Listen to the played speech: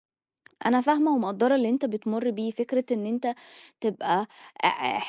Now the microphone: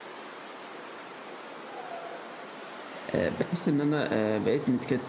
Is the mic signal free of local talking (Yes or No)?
No